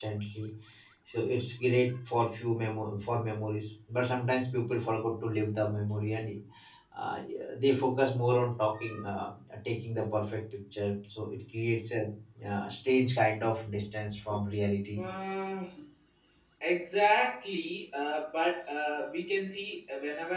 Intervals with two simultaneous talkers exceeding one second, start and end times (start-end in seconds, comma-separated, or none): none